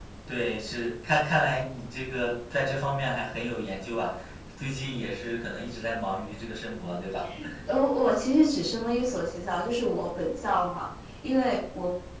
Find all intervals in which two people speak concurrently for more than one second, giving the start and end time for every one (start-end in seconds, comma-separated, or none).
none